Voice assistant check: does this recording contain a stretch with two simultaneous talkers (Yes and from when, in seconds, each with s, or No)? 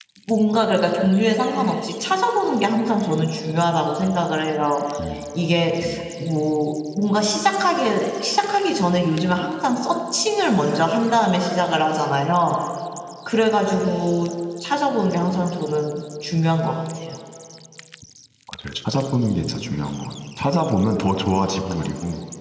No